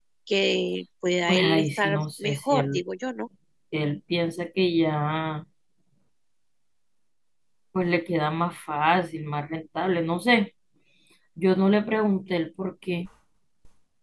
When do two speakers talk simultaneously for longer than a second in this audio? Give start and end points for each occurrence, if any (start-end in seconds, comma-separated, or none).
1.3-2.8